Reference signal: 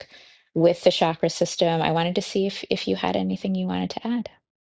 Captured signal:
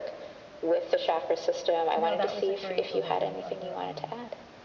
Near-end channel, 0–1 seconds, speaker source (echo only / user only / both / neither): echo only